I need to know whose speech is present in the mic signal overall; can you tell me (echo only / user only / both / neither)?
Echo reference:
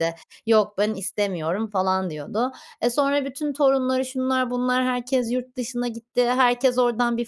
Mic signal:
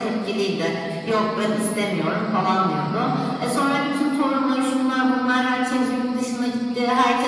echo only